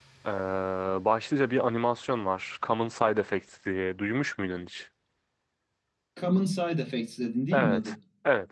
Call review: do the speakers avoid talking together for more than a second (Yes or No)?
Yes